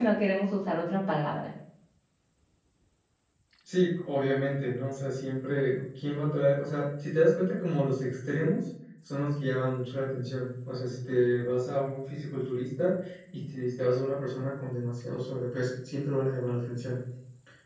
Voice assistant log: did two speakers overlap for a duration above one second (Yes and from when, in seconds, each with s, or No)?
No